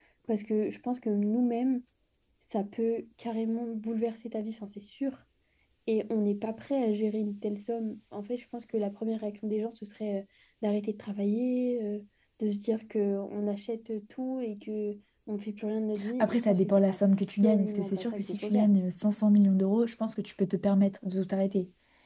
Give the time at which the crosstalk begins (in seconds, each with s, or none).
16.0 s